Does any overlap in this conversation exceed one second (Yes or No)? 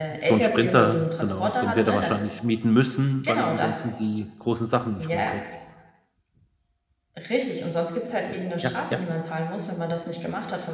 Yes